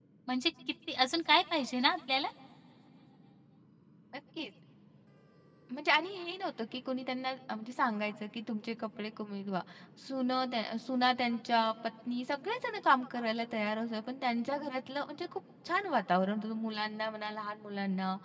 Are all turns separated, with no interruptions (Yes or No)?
Yes